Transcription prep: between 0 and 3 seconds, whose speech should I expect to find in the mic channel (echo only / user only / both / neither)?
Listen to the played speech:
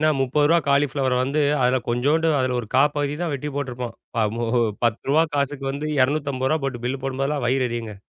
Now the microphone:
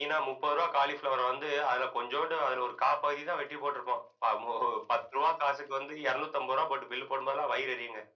echo only